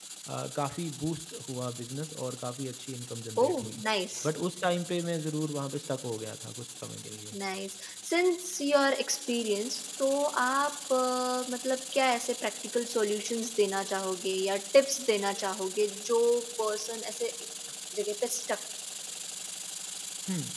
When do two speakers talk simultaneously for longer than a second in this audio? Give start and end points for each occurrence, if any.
none

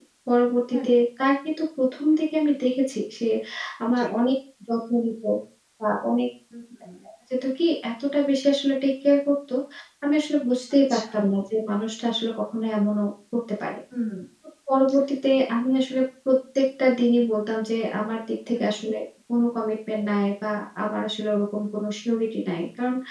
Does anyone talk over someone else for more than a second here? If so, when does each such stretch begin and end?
none

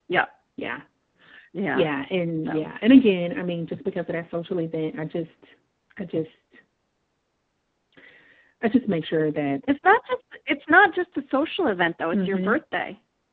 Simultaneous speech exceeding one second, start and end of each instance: none

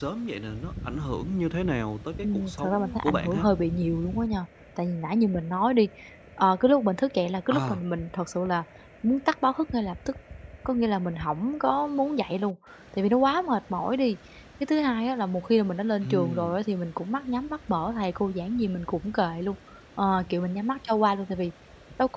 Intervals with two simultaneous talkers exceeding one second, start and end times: 2.2-3.5

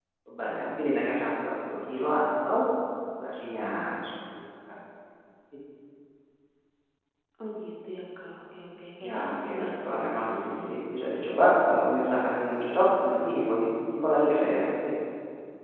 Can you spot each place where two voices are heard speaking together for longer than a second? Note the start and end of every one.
9.1-10.7

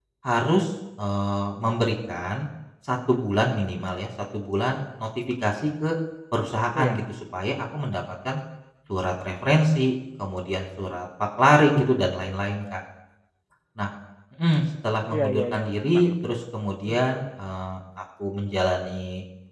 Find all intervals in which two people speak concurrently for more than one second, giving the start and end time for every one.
15.1-16.4

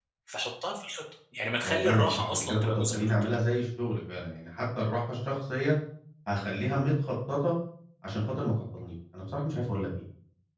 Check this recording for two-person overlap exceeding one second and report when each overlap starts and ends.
1.6-3.1

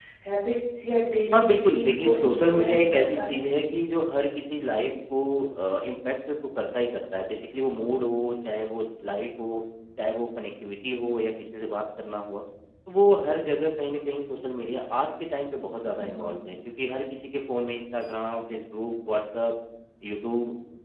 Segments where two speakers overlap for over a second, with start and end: 1.3-3.4

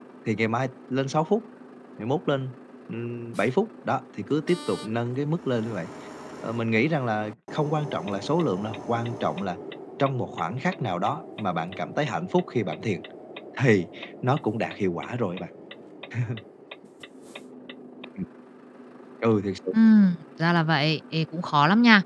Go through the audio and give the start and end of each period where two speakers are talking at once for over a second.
none

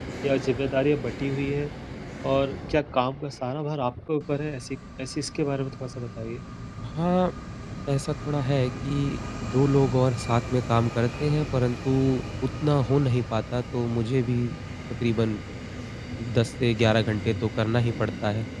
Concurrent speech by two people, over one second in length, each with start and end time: none

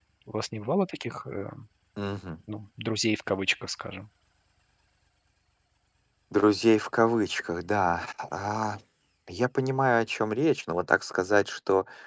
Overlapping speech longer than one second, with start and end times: none

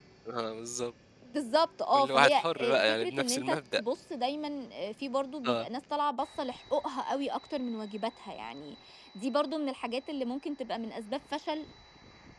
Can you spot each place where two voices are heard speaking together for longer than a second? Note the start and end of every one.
1.9-3.8

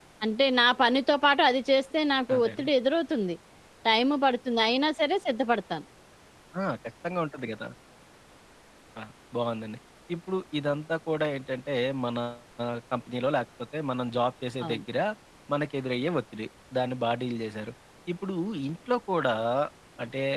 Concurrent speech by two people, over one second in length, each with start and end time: none

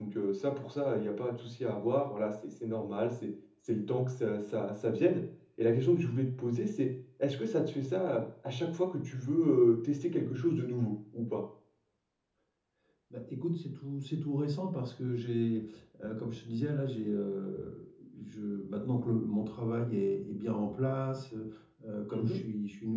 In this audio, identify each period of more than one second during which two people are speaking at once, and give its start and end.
none

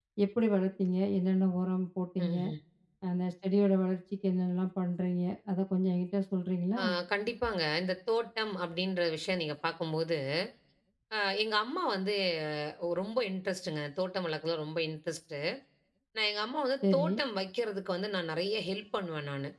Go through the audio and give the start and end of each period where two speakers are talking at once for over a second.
none

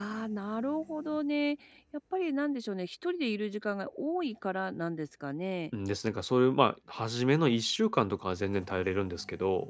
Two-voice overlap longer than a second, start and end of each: none

